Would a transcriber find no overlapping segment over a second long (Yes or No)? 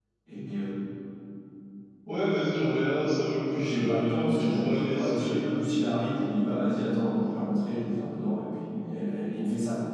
No